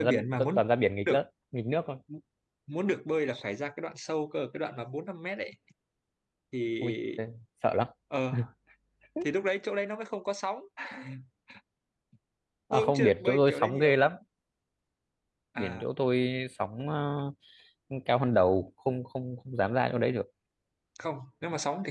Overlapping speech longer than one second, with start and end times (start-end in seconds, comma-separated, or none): 12.7-14.0